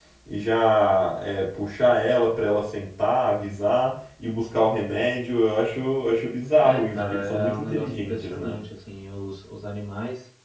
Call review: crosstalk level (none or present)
present